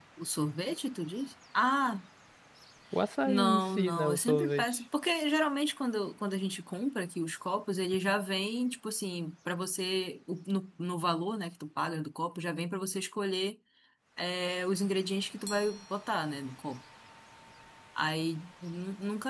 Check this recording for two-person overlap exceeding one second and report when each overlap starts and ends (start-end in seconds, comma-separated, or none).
3.2-4.8